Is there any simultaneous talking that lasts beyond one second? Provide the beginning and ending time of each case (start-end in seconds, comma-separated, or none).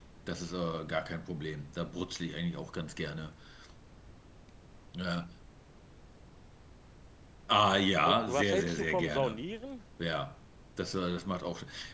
8.1-9.4